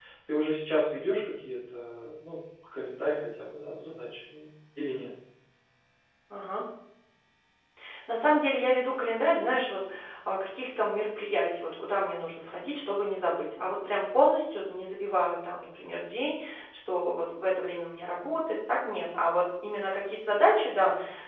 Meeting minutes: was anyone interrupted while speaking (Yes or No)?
No